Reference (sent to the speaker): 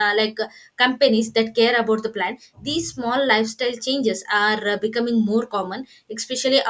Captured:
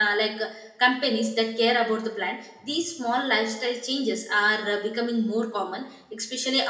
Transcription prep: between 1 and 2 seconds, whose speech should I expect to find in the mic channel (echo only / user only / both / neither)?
echo only